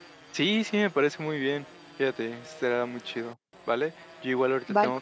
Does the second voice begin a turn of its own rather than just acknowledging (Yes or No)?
No